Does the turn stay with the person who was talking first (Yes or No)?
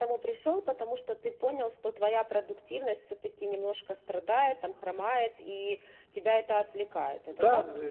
No